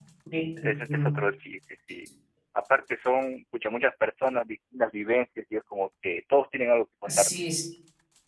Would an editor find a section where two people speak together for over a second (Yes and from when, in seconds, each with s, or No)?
No